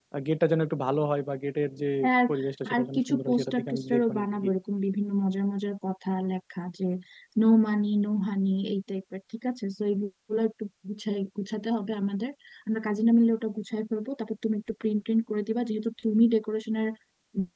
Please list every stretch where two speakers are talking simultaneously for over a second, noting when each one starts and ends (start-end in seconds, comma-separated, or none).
2.7-4.5